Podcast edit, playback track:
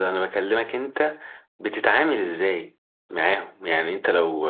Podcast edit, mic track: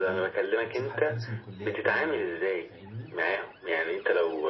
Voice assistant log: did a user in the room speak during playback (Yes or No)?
Yes